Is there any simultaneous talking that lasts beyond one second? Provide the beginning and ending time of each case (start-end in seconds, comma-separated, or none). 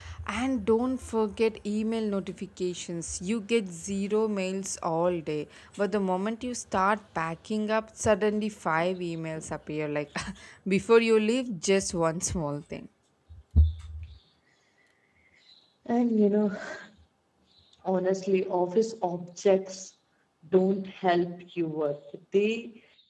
none